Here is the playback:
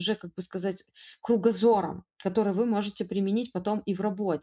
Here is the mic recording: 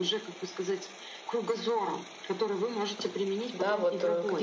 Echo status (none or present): present